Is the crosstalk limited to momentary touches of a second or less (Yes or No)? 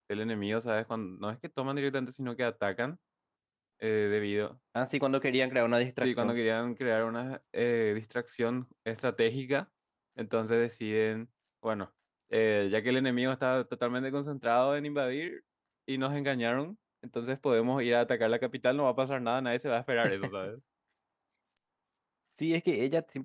Yes